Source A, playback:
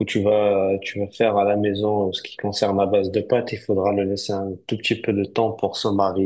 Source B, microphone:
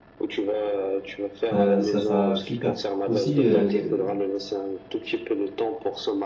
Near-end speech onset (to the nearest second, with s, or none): 2 s